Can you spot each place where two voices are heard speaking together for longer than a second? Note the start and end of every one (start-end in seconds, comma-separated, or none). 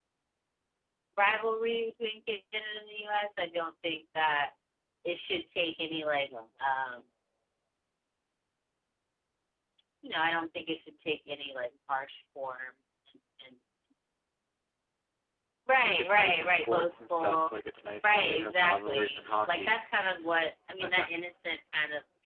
15.7-17.5, 18.0-19.8